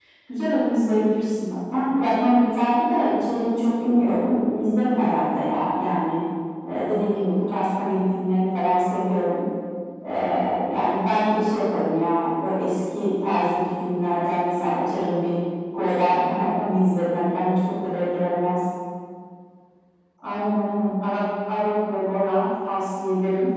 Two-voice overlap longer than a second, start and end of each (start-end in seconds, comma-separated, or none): none